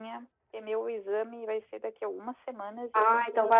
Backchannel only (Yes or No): No